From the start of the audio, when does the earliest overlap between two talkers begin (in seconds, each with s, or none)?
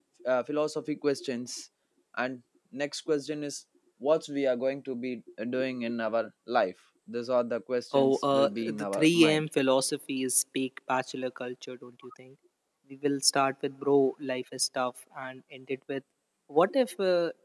7.9 s